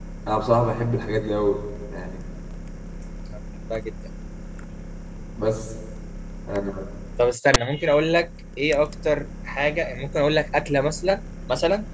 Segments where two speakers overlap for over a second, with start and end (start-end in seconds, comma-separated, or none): none